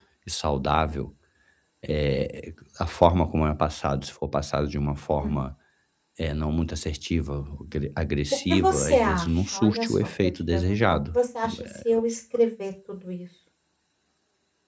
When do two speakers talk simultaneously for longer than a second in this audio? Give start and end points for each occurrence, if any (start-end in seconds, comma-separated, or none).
8.5-11.2